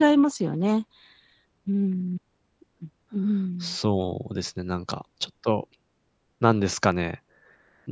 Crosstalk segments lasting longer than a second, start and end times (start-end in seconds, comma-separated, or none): none